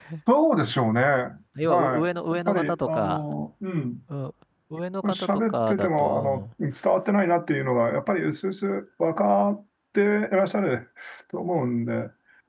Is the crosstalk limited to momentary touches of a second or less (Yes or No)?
No